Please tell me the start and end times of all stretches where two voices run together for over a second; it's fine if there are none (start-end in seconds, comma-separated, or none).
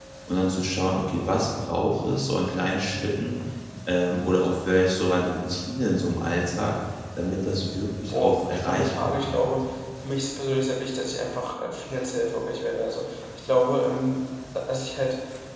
8.1-9.5